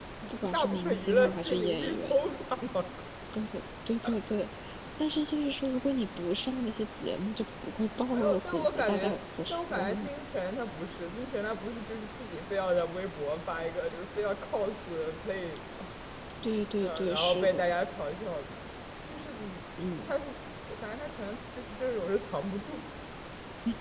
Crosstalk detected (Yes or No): Yes